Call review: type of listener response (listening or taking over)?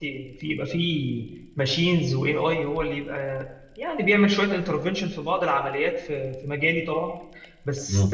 listening